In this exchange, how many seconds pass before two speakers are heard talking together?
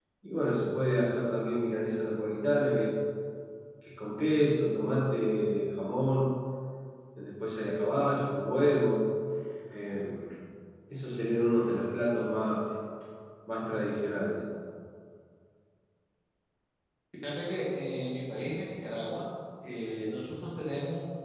none

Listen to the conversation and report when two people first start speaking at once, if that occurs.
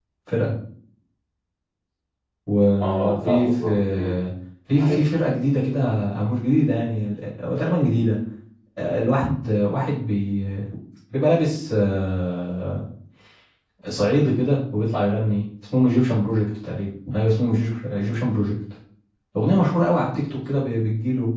2.8 s

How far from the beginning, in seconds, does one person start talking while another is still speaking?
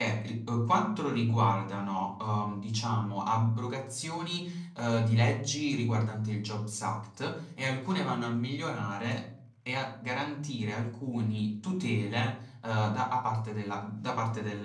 none

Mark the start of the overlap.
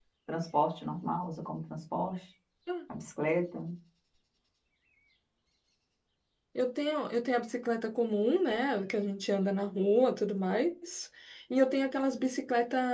none

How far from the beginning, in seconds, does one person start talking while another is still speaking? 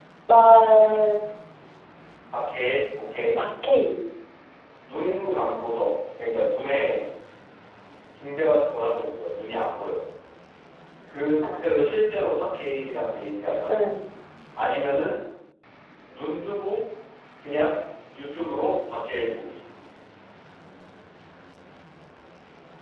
none

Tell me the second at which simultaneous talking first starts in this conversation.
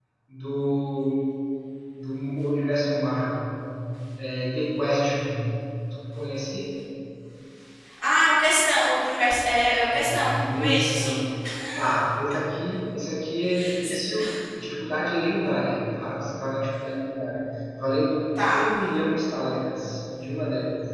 9.9 s

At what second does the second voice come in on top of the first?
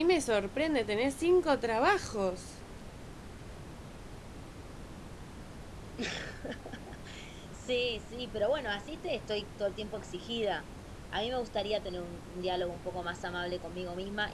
none

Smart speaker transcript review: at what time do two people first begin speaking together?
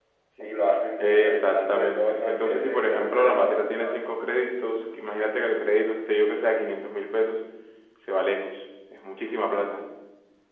1.0 s

